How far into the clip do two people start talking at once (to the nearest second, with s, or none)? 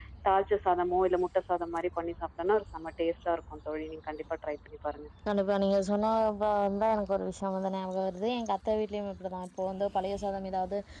none